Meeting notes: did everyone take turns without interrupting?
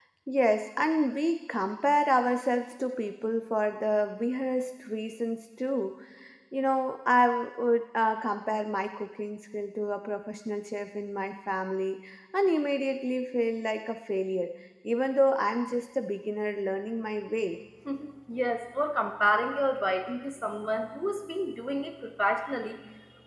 Yes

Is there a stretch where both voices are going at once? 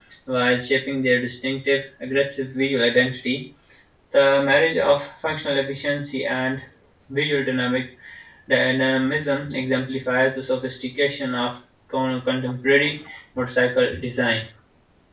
No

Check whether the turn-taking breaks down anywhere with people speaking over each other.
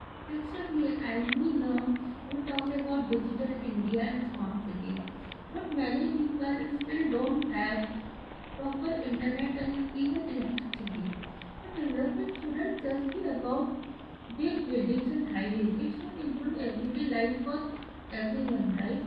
No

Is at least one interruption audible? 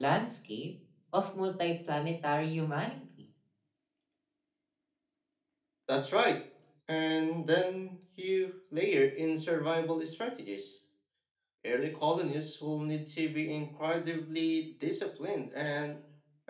No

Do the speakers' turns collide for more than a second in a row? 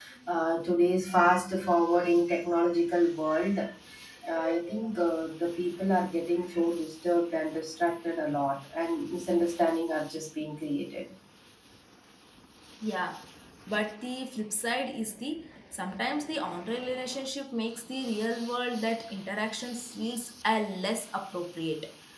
No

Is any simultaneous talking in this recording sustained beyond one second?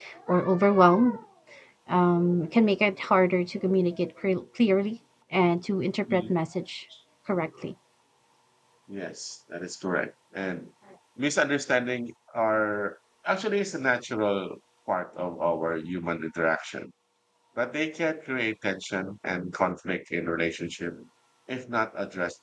No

